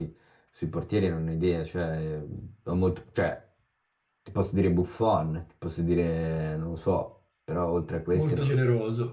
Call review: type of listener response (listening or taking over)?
taking over